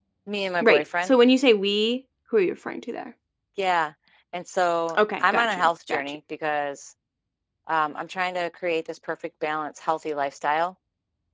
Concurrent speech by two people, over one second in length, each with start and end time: 5.0-6.2

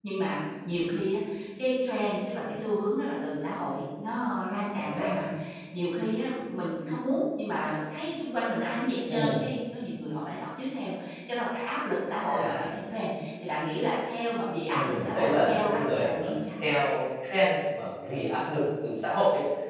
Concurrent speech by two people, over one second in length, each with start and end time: 14.7-16.4

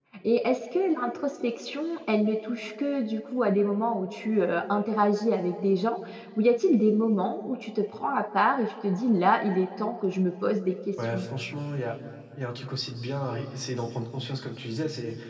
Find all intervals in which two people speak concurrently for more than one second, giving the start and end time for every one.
none

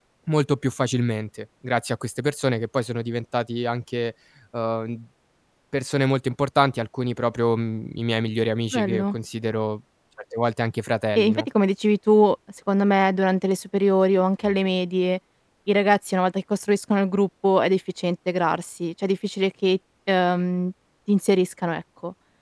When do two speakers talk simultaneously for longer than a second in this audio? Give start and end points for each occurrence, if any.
none

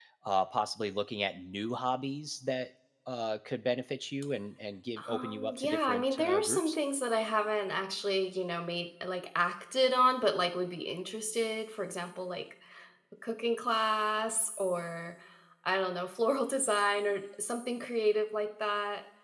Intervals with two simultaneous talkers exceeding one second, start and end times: 5.1-6.8

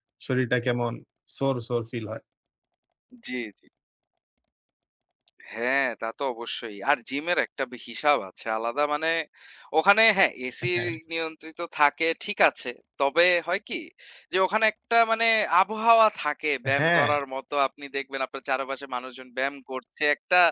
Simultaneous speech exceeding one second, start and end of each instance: none

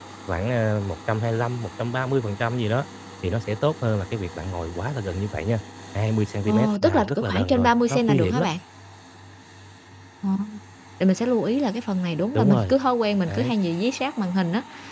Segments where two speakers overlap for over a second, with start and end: 6.5-8.5

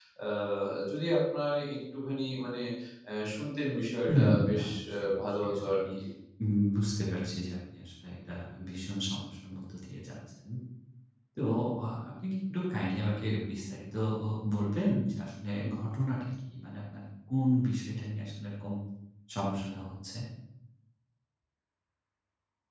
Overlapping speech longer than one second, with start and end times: 4.1-5.8

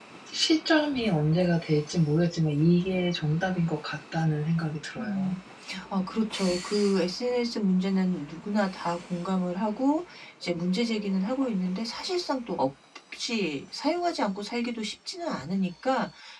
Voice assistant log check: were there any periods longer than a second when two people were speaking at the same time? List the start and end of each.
none

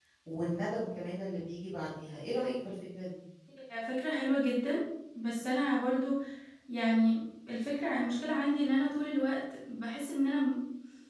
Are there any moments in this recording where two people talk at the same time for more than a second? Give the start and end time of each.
none

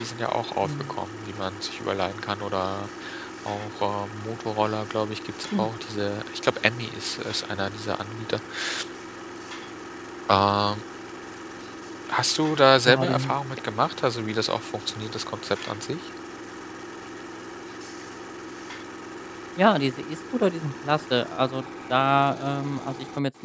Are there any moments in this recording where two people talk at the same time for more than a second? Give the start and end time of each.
none

